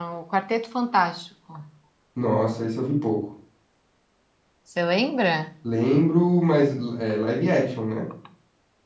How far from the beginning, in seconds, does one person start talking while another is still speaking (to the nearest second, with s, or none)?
none